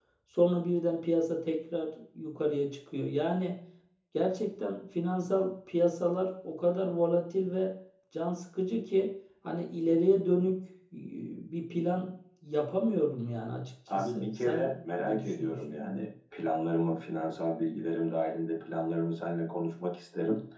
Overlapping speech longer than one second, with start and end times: 13.9-15.6

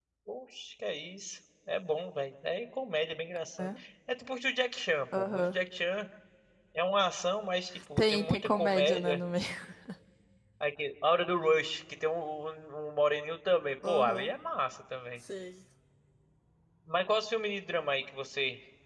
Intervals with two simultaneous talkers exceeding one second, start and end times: 8.0-9.2

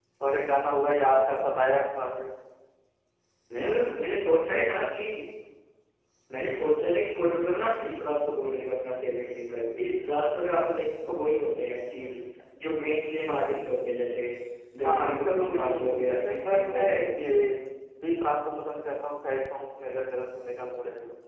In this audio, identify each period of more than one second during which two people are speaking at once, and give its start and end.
14.8-17.1

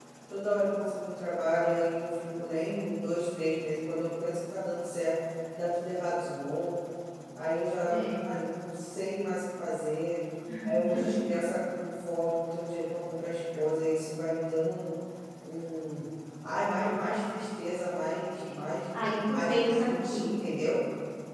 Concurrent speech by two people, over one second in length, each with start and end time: 18.9-20.3

